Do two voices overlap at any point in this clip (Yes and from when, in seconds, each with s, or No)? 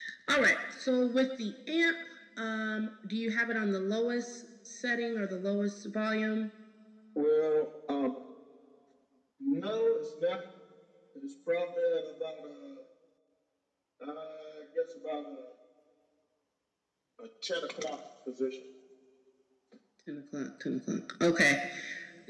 No